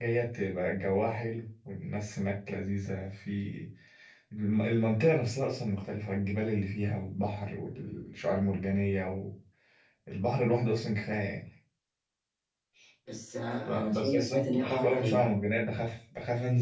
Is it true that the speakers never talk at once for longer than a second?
No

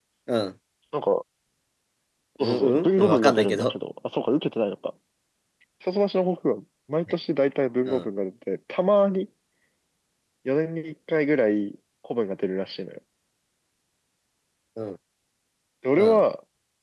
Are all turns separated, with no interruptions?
No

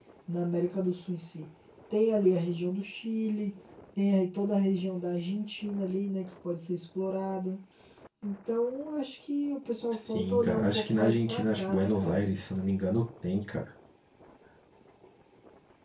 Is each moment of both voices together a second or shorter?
No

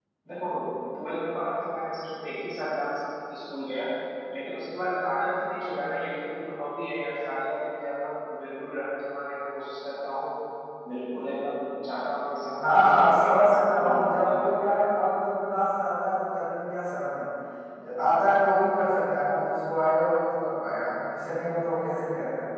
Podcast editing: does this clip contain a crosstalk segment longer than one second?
Yes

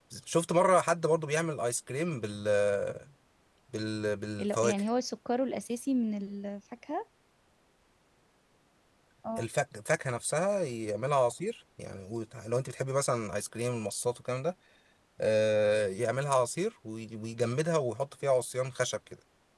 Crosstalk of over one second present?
No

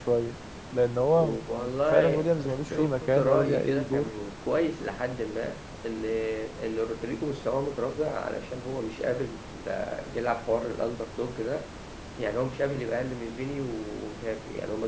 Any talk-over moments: Yes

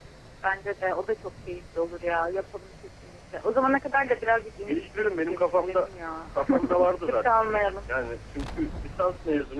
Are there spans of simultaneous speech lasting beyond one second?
Yes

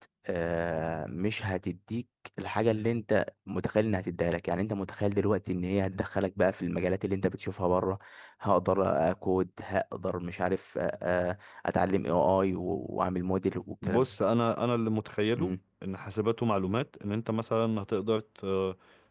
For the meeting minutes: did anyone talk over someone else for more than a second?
No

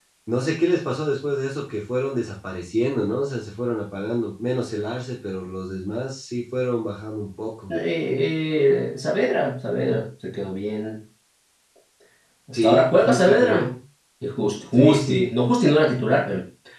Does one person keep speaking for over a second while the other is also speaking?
Yes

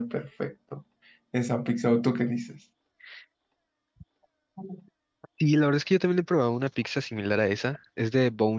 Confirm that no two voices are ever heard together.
Yes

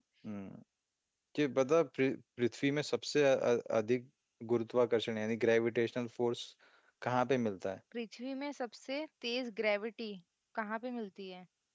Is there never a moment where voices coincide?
Yes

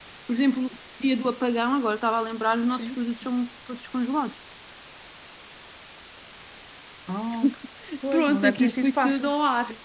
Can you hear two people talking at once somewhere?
Yes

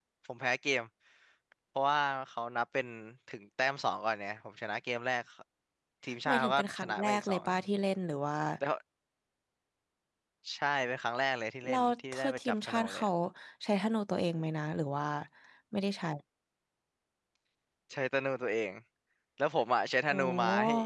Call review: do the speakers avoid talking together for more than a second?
No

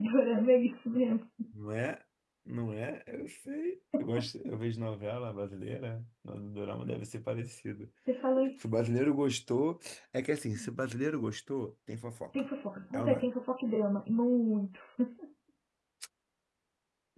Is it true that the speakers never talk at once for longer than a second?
Yes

